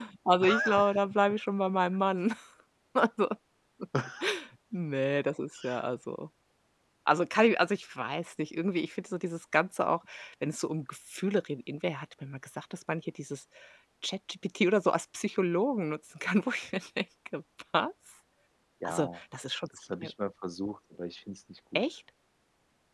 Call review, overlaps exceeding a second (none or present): none